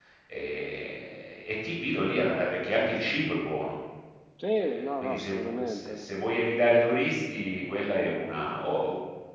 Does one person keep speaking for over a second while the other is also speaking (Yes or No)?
Yes